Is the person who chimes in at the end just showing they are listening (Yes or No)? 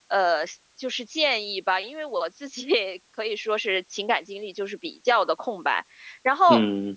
Yes